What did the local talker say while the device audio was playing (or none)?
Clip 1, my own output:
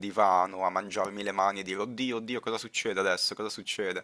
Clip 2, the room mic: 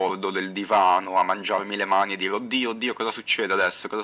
none